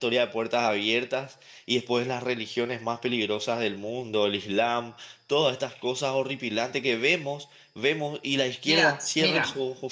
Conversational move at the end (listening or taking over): taking over